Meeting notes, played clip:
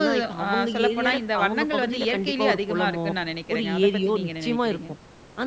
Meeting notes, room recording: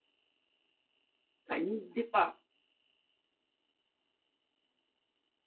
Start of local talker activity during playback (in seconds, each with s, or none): 1.5 s